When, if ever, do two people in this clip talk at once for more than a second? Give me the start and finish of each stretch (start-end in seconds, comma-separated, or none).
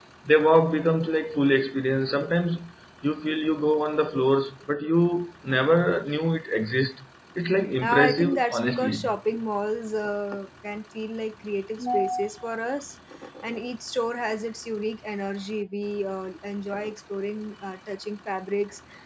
7.8-9.0